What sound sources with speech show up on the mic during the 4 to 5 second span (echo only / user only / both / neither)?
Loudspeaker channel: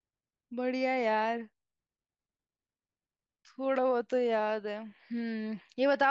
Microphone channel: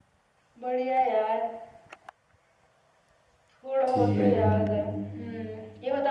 both